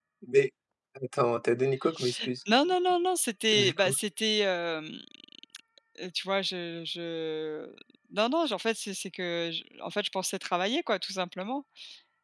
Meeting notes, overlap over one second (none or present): none